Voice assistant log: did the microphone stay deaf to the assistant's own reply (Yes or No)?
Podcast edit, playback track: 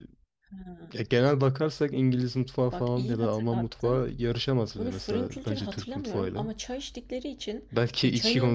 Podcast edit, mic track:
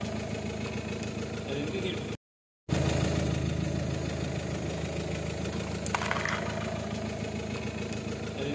Yes